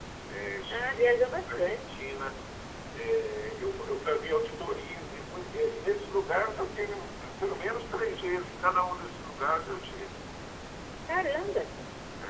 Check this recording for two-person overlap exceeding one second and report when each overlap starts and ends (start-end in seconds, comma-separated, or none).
0.7-2.0